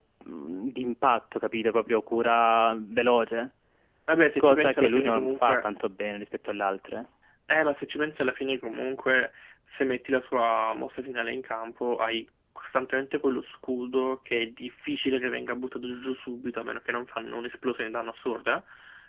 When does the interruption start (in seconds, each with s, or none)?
4.4 s